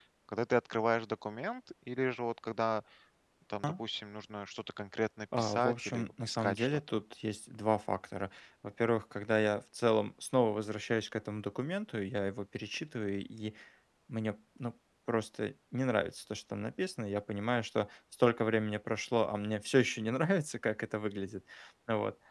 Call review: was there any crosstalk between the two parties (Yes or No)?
Yes